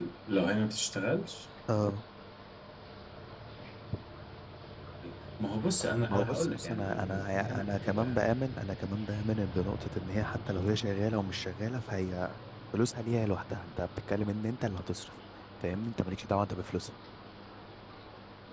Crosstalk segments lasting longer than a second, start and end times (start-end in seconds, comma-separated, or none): 6.1-8.2